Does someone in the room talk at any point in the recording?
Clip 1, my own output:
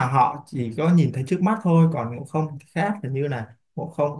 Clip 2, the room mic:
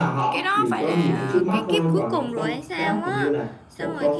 Yes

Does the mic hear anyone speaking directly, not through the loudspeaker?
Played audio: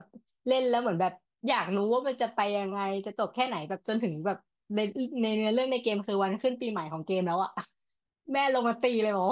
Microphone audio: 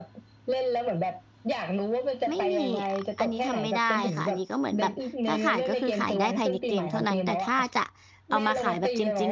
Yes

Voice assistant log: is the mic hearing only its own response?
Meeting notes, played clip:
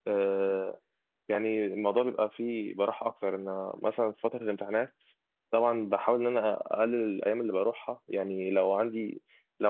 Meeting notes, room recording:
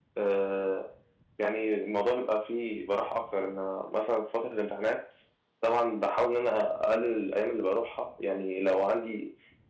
Yes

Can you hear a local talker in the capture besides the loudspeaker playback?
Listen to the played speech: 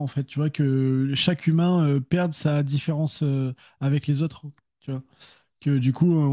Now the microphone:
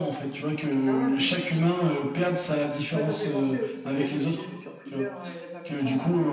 Yes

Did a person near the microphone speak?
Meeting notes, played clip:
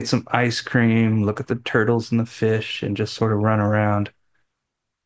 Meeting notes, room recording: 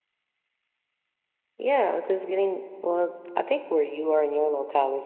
Yes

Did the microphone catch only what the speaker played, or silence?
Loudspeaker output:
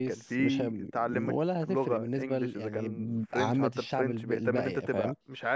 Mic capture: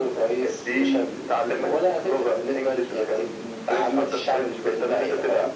Yes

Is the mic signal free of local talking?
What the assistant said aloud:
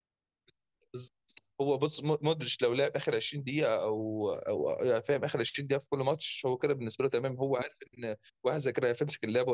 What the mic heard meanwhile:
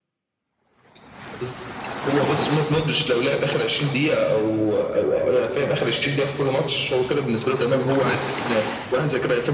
Yes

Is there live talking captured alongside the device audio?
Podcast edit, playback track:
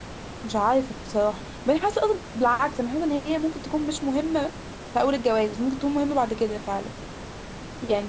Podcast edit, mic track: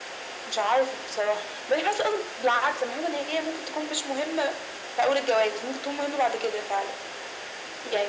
No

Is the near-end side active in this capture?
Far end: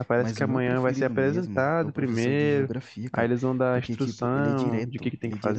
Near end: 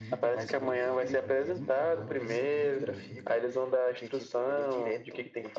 Yes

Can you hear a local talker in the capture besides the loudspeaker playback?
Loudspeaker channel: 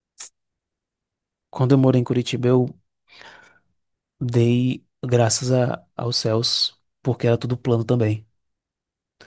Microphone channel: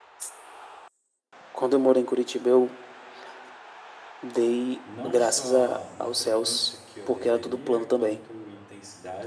Yes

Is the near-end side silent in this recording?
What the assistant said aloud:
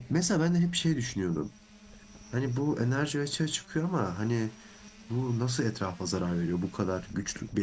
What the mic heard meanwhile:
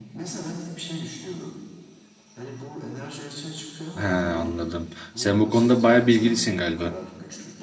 No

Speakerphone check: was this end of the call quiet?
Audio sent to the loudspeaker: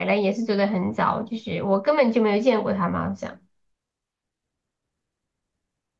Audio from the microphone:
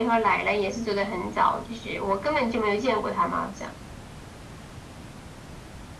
Yes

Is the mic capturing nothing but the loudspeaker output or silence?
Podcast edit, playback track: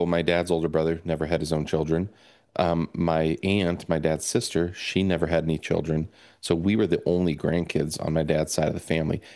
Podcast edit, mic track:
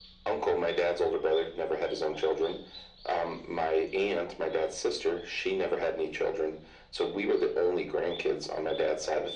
Yes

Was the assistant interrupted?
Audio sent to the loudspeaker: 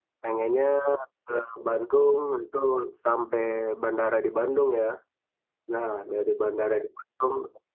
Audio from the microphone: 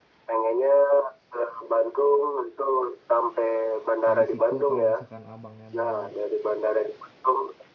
Yes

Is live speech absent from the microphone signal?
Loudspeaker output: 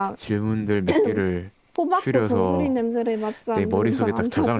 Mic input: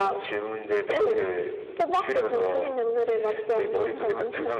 Yes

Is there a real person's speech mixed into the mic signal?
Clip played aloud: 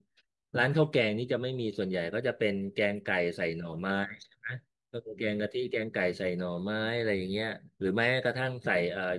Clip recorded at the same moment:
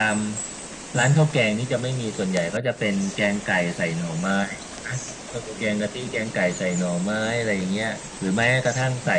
No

